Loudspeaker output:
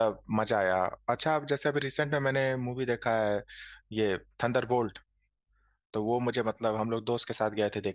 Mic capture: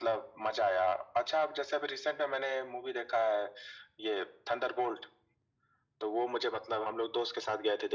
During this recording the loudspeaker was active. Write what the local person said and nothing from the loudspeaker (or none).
none